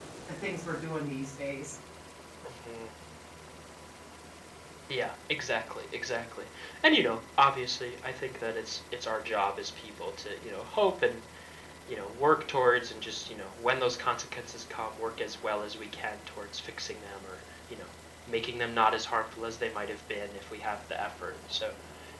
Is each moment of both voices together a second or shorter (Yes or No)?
Yes